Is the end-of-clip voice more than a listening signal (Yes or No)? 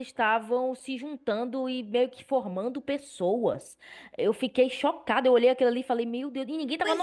Yes